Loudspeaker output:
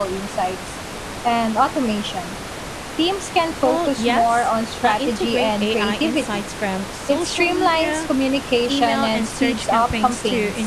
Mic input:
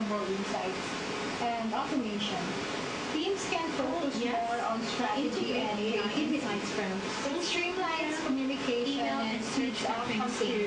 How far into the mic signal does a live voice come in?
none

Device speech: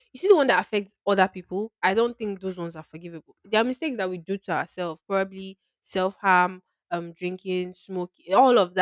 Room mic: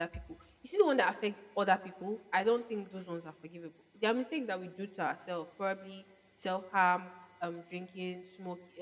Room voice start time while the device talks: none

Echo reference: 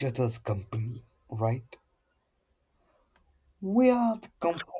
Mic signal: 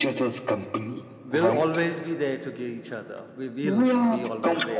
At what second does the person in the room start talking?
1.2 s

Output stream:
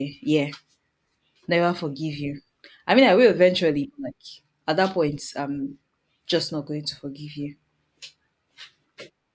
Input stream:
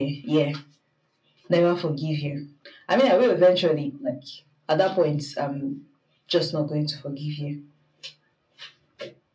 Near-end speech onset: none

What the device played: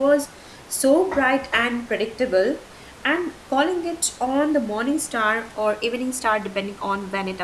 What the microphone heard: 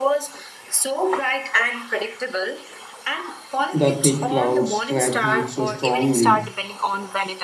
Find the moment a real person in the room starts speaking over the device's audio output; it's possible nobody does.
3.7 s

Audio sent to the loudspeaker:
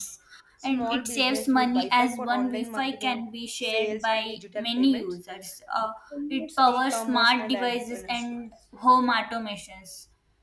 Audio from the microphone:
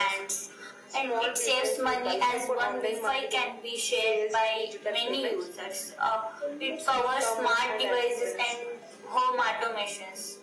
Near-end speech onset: none

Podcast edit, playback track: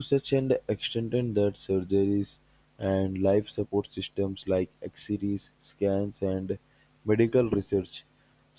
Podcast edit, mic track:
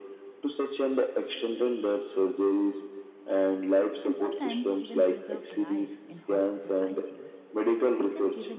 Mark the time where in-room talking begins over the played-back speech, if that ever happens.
4.0 s

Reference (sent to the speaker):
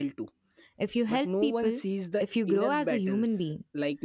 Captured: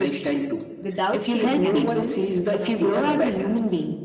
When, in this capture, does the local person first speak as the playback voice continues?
0.8 s

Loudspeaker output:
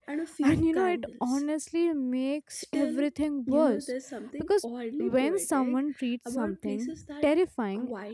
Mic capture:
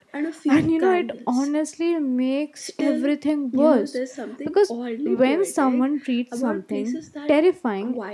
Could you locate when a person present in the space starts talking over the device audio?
none

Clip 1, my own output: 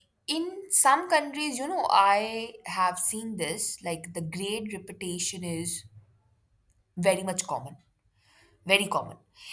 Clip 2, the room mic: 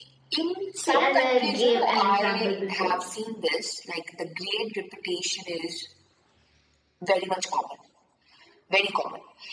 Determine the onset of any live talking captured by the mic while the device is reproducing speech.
0.7 s

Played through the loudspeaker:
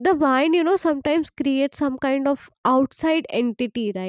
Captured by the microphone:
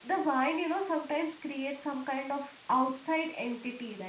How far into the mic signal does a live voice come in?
none

